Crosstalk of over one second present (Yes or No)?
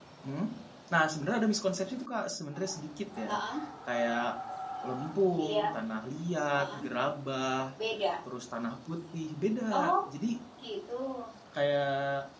No